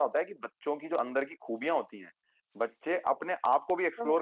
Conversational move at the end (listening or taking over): listening